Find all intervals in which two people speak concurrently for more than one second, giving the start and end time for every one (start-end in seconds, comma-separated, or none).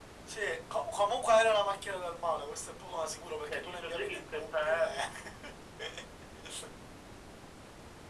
3.5-5.0